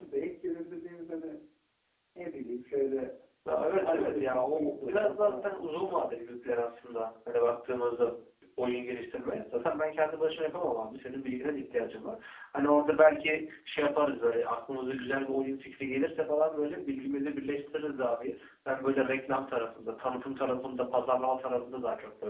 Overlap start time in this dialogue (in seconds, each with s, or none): 3.8 s